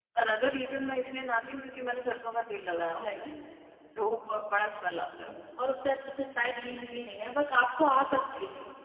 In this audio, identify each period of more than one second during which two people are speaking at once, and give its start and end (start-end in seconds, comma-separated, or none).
none